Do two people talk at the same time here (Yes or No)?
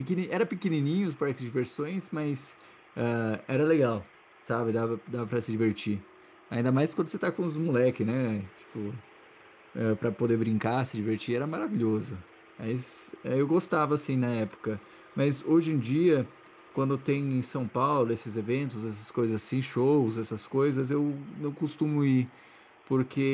No